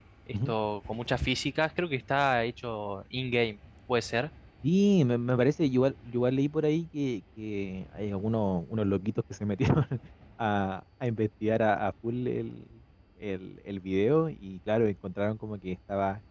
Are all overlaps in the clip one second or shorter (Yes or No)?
Yes